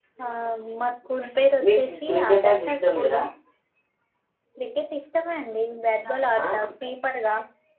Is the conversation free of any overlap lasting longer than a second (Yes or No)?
No